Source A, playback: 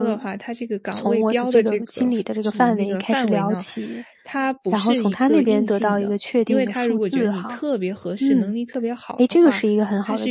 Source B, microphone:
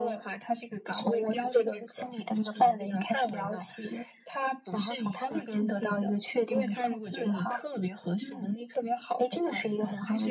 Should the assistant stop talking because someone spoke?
No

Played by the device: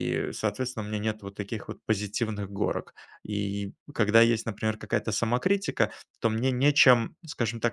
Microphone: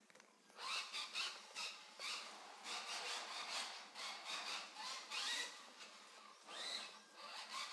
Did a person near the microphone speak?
No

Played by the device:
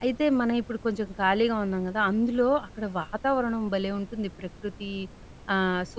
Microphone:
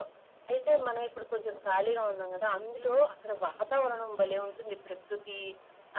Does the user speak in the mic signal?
No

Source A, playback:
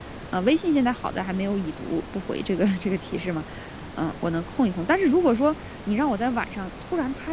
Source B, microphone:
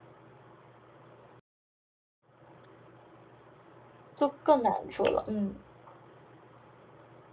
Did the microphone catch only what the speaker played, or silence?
No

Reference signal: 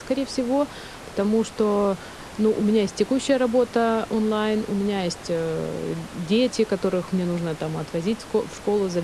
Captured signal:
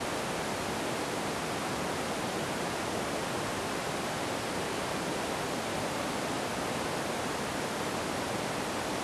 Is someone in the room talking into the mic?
No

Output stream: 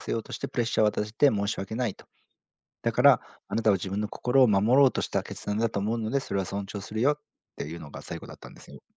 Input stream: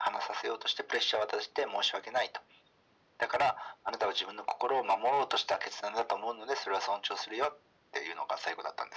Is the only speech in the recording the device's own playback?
Yes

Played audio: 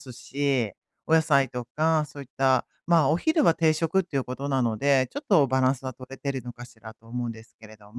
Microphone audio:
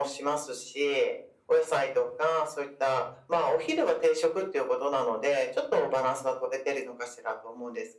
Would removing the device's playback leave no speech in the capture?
Yes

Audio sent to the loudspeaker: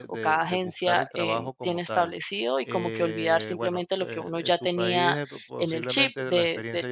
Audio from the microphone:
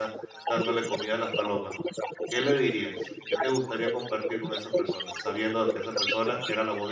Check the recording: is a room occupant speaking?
Yes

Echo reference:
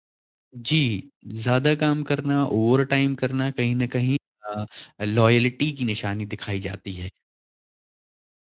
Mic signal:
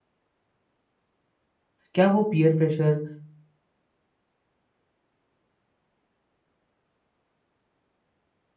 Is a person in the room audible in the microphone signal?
Yes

